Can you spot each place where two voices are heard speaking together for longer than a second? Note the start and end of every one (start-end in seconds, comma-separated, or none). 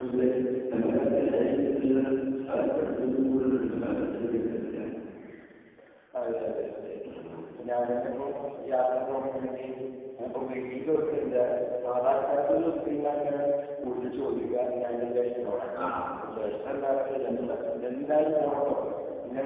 none